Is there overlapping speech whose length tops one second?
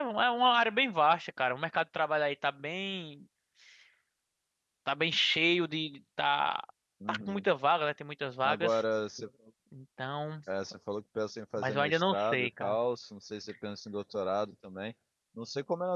Yes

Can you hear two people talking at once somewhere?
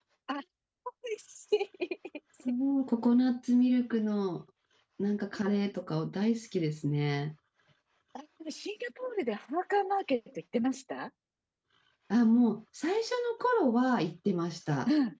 No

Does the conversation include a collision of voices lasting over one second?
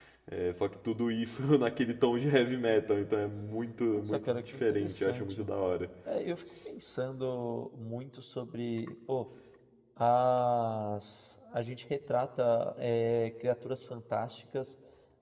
Yes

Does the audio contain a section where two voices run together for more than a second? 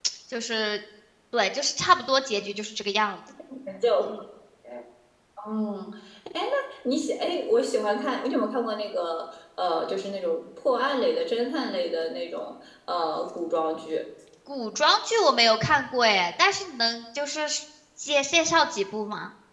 No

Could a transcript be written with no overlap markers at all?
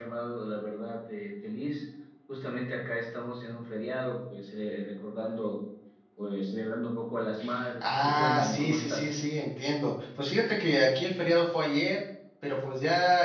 No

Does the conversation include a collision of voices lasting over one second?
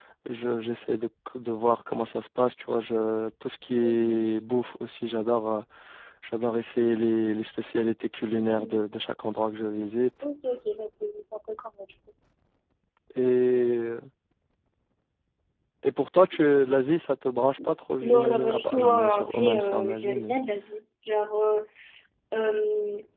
Yes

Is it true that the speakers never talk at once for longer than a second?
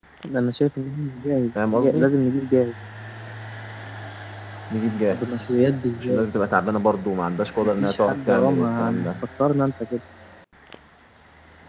No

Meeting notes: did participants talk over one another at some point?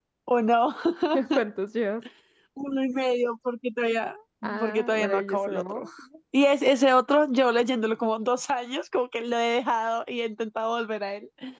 Yes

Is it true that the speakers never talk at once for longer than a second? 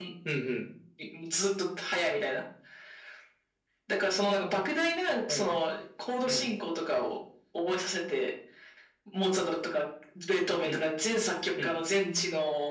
Yes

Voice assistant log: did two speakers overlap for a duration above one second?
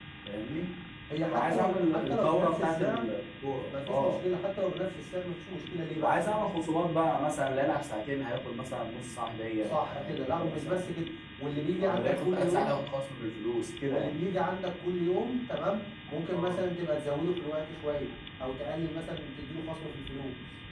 Yes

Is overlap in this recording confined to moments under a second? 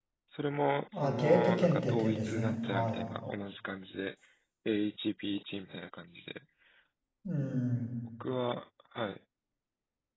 No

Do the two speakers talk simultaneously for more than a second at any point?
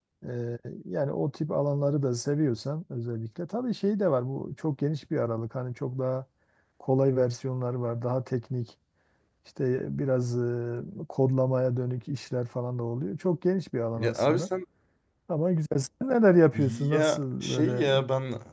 Yes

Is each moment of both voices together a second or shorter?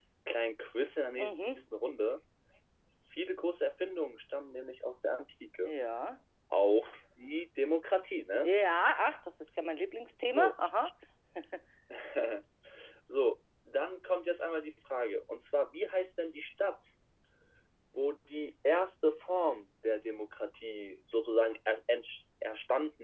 Yes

